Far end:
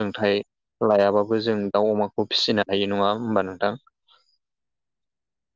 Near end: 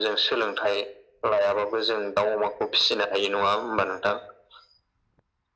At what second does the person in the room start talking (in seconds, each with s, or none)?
none